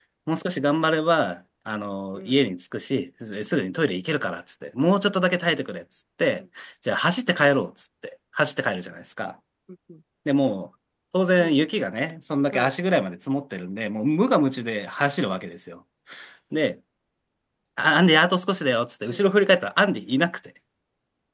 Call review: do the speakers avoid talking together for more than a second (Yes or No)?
Yes